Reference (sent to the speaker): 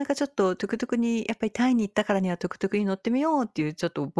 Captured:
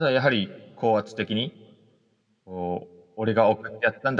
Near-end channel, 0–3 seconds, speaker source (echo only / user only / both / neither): user only